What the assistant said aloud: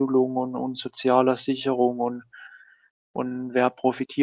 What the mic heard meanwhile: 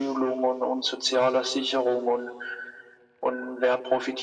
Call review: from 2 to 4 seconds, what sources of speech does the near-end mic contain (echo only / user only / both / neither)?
echo only